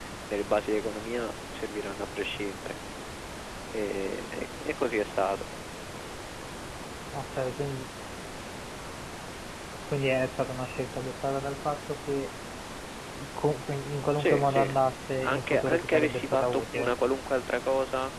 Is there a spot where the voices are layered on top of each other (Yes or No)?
Yes